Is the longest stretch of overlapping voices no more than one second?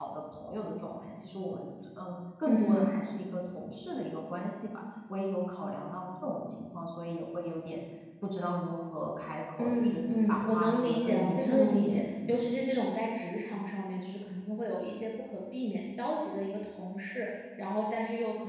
No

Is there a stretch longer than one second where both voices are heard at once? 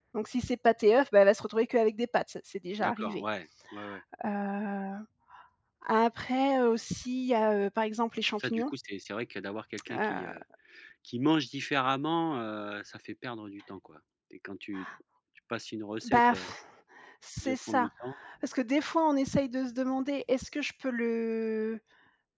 No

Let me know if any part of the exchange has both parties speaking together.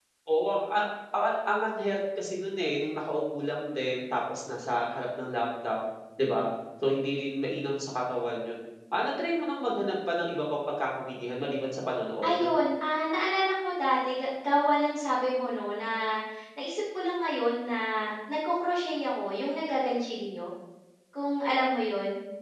No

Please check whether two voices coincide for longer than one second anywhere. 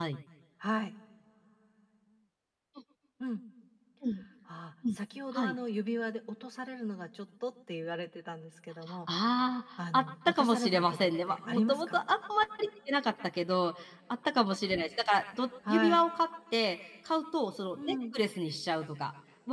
Yes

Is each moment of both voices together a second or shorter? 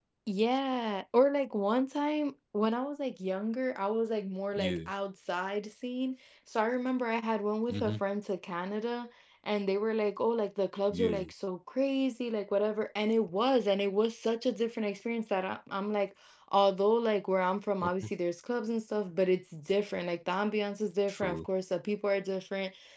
Yes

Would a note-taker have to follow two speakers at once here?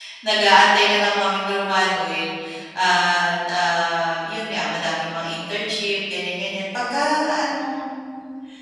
No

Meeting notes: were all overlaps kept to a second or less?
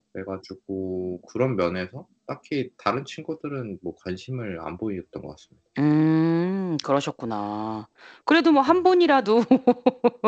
Yes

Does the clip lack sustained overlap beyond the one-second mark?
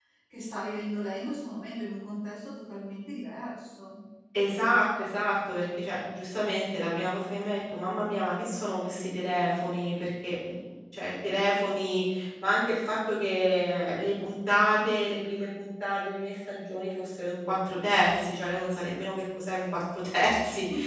Yes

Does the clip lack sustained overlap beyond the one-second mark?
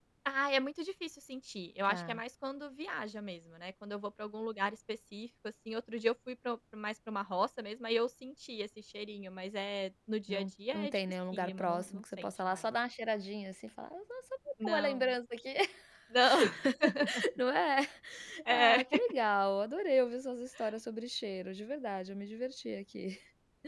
No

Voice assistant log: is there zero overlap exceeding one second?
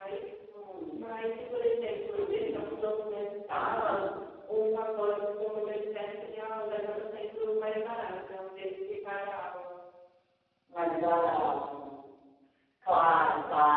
Yes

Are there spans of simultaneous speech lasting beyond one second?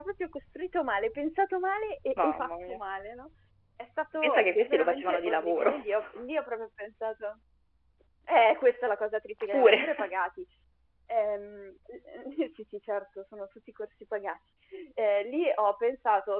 Yes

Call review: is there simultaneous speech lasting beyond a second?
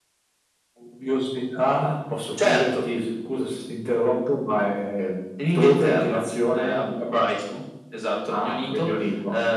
Yes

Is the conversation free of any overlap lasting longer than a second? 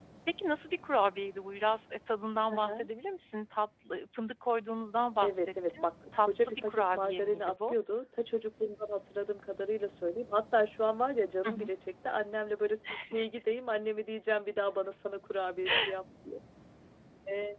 No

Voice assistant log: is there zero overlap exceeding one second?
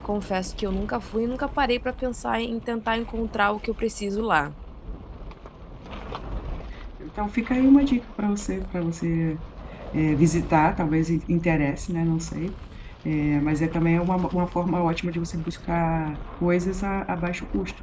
Yes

